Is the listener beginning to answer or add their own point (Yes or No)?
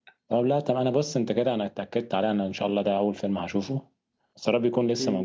No